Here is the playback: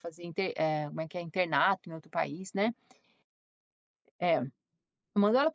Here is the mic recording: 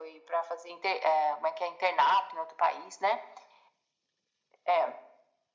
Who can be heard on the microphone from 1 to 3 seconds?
echo only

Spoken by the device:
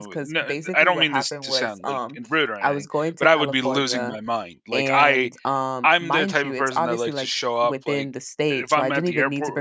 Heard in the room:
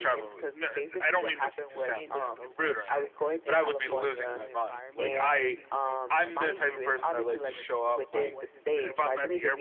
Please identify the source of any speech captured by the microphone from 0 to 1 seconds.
echo only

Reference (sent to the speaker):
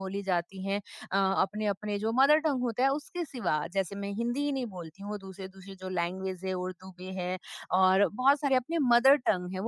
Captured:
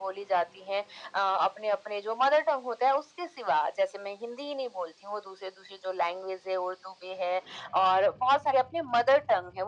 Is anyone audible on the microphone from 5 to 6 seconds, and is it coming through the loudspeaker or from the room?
echo only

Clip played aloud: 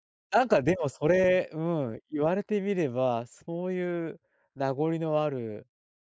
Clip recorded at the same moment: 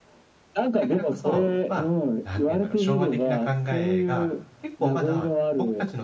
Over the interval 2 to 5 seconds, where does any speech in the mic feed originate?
both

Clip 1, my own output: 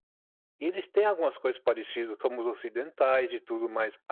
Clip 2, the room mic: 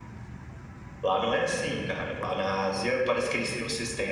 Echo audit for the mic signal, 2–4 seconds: user only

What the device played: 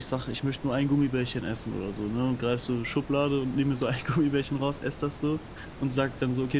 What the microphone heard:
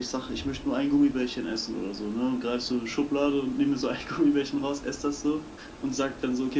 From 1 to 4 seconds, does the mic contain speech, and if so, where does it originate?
echo only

